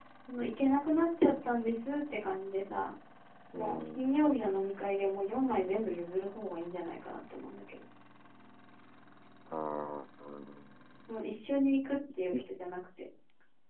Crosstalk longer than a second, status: none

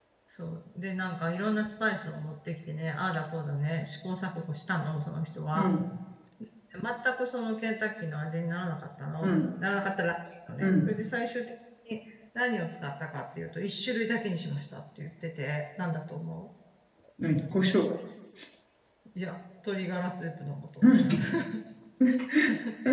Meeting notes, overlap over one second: none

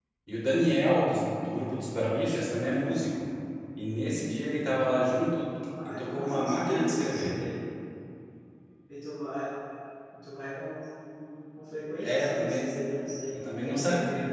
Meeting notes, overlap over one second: present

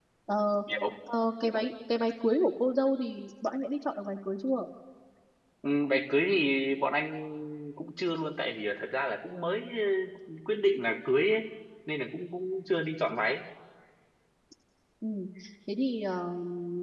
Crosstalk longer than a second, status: none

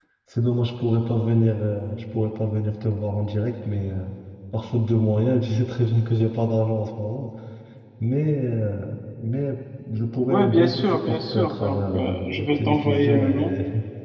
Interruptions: present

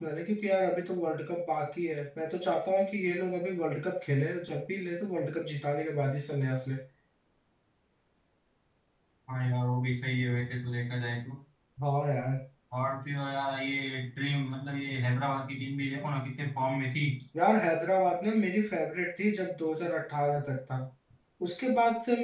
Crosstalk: none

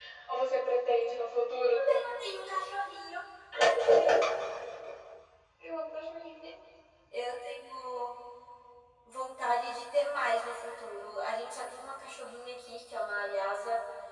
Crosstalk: none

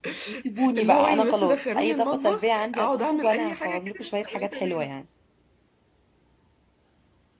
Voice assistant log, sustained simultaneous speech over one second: present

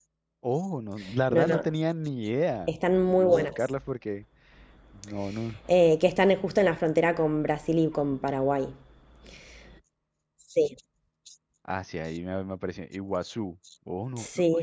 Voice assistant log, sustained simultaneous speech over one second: none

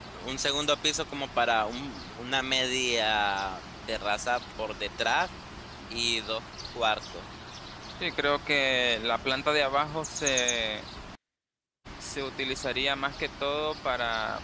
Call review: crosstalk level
none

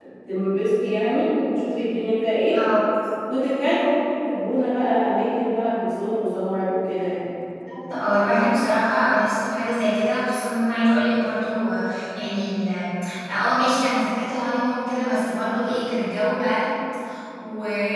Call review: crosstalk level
none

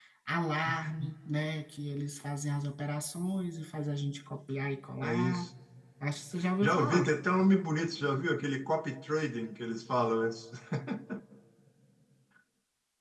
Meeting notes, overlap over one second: none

